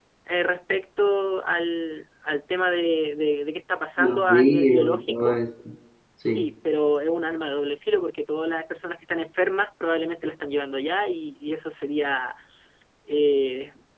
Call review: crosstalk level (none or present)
present